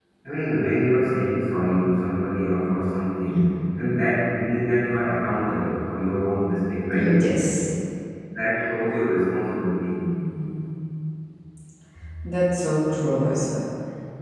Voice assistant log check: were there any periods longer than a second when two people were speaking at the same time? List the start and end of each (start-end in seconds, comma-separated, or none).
none